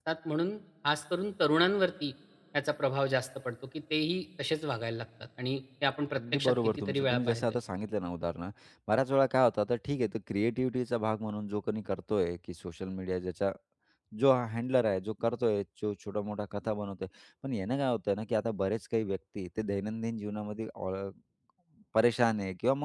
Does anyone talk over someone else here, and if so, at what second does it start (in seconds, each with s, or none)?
6.1 s